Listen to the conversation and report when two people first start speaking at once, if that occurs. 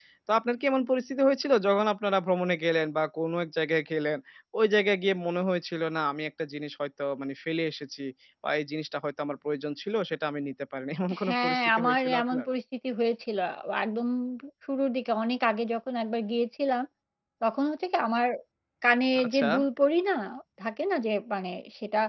11.2 s

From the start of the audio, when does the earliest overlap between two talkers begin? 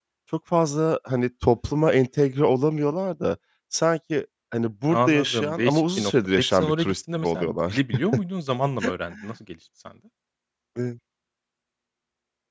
4.9 s

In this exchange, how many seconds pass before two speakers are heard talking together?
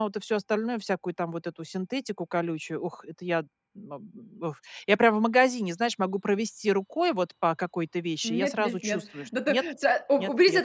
8.2 s

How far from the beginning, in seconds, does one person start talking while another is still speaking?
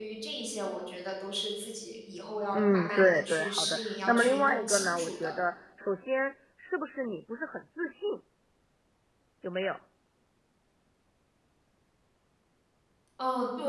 2.5 s

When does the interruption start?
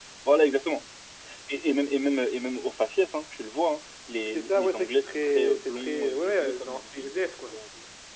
4.3 s

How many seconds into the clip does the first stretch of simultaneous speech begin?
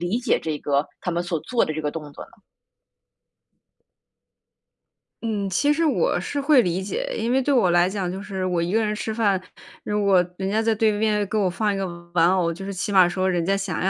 none

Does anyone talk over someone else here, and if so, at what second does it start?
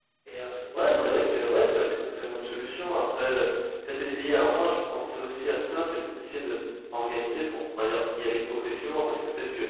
0.7 s

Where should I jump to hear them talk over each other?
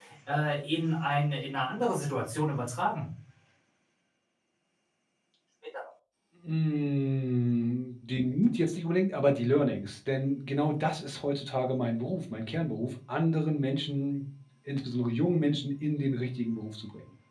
none

